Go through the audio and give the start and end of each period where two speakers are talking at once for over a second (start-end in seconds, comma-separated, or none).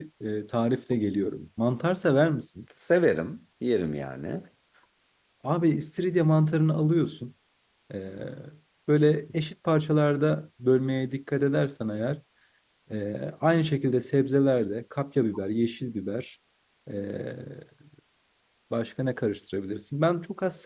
none